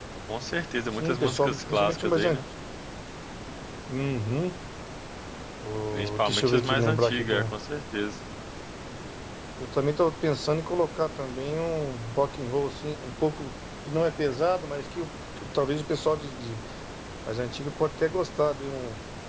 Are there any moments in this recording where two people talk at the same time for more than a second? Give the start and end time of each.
1.0-2.4, 5.9-7.5

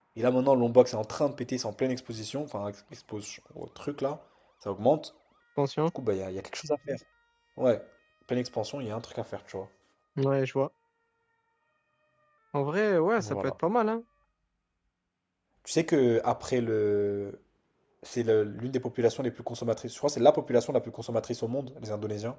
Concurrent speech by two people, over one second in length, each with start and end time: none

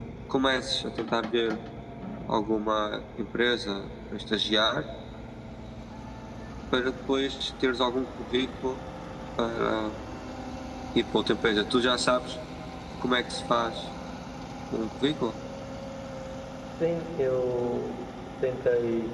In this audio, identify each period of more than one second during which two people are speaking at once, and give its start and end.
none

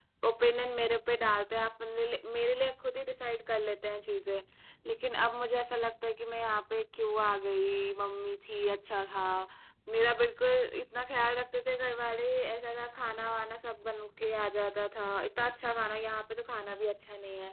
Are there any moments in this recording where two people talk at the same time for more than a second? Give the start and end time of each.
none

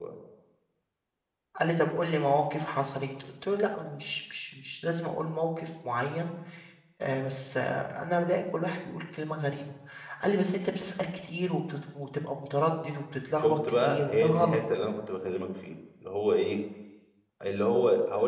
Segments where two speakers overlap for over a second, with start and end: 13.4-14.6

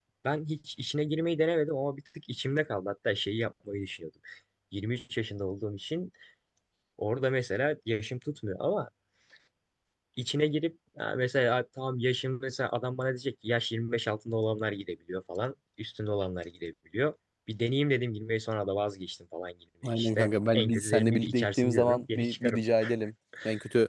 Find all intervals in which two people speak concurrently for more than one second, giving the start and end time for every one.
19.8-22.6

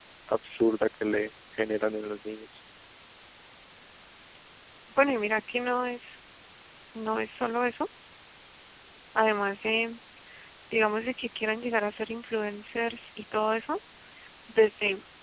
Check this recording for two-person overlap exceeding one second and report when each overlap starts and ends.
none

